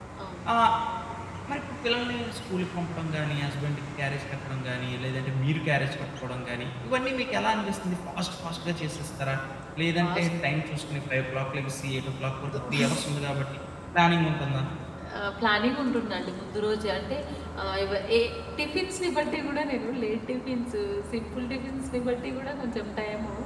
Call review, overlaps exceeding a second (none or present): none